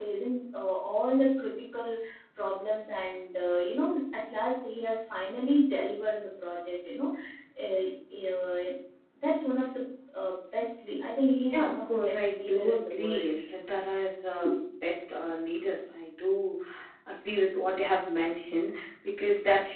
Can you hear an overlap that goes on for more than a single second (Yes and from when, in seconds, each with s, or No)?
Yes, from 11.5 s